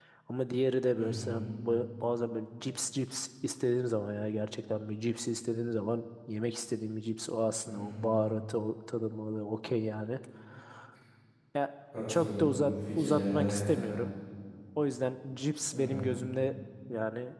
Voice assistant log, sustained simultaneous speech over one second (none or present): present